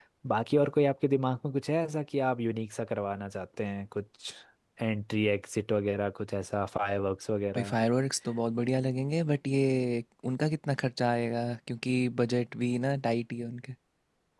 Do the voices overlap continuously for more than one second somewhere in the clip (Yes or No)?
No